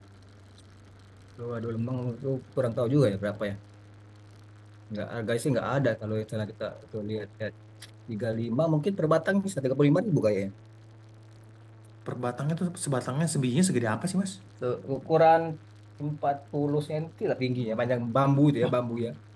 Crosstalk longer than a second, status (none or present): none